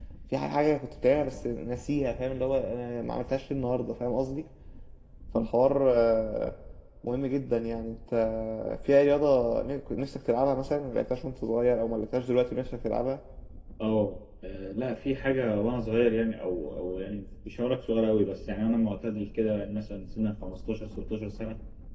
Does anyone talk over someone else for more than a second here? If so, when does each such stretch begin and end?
none

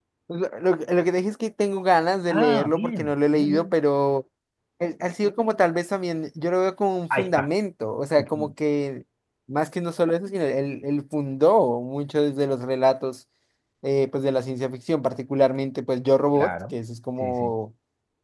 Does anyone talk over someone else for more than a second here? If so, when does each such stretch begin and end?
2.3-3.7

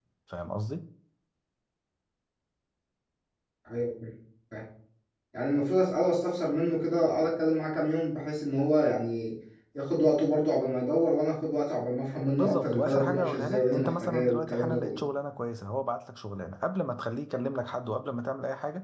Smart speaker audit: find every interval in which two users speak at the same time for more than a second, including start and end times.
12.3-15.0

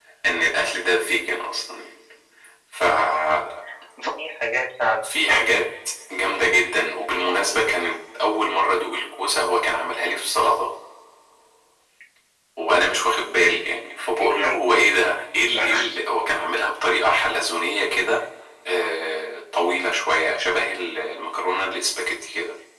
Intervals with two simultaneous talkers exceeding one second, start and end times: none

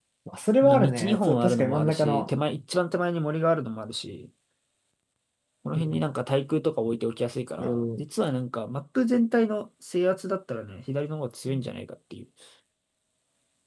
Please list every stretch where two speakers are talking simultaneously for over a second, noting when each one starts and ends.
0.6-2.3

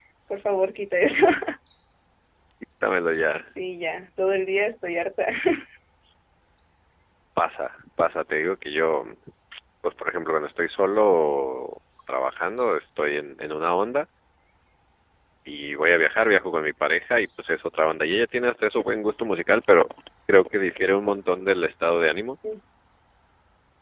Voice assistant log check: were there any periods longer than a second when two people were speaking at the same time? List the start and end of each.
none

